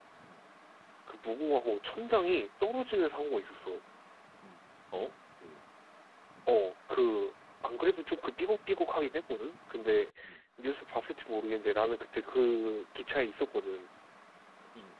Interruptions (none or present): none